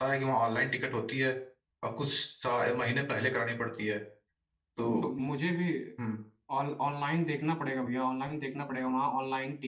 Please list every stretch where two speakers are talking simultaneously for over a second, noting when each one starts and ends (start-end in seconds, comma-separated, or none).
none